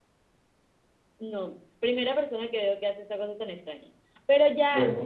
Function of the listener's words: listening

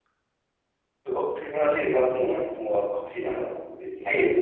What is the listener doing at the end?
taking over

